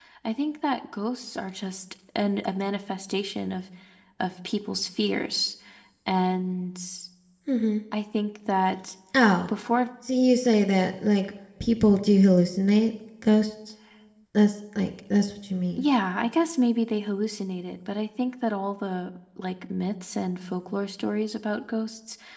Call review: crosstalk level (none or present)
none